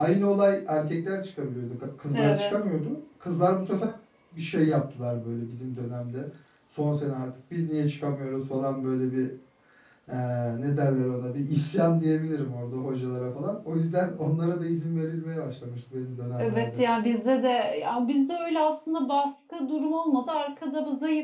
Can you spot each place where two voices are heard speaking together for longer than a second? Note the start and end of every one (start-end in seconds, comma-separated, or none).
none